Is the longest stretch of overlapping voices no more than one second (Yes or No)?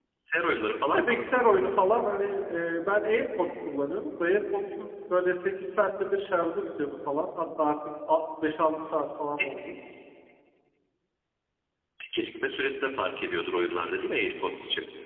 Yes